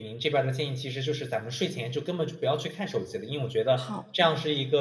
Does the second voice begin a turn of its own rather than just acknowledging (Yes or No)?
No